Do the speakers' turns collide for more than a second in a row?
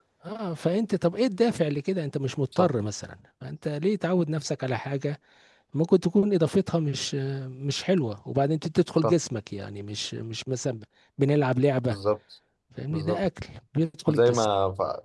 No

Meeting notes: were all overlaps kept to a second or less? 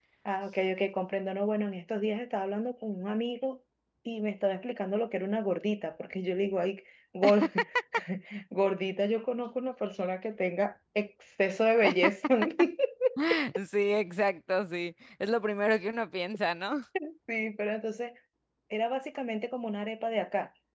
Yes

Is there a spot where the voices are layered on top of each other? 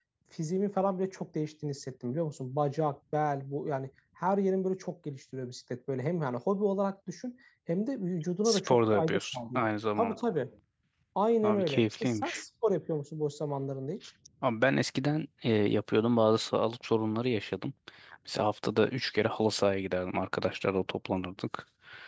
Yes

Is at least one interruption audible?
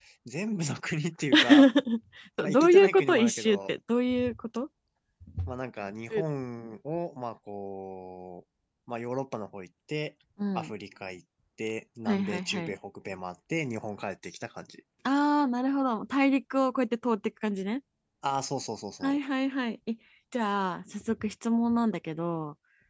Yes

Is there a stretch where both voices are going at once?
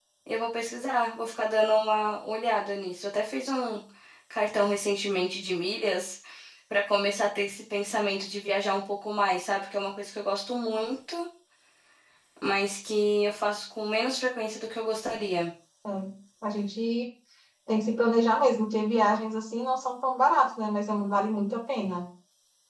No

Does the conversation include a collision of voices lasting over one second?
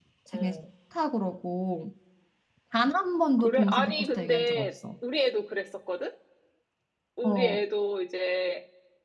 Yes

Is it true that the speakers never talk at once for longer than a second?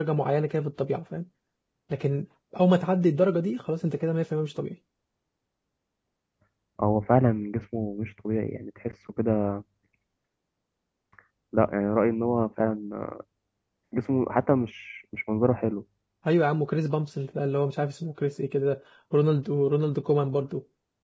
Yes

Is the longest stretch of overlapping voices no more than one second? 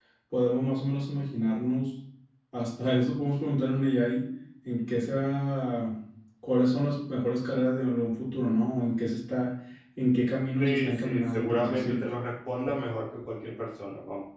No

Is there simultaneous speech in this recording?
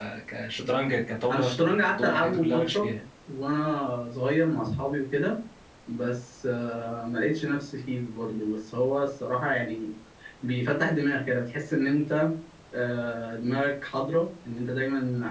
Yes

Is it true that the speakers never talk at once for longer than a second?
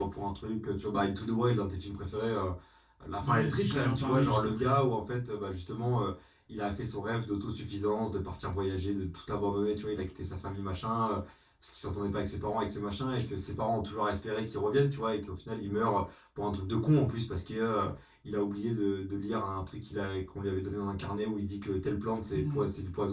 No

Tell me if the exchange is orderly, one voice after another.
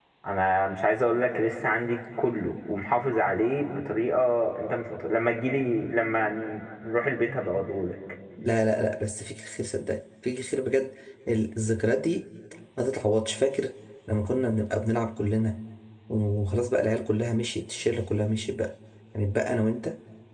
Yes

